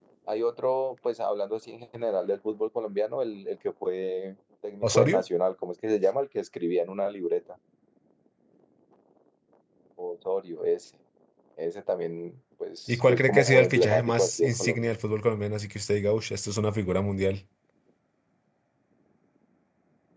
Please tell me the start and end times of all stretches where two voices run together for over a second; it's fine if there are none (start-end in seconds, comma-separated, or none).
12.9-14.8